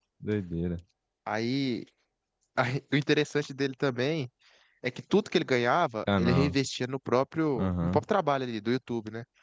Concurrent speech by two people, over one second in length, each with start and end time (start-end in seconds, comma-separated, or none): none